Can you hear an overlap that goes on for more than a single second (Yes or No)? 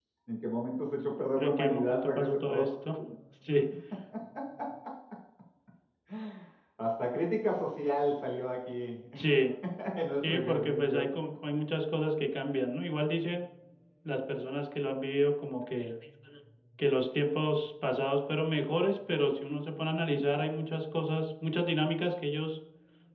Yes